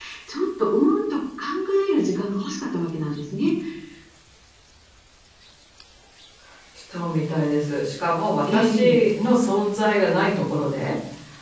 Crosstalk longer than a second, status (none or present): none